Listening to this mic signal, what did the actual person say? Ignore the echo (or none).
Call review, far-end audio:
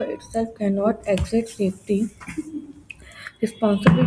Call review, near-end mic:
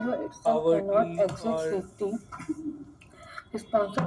poverty or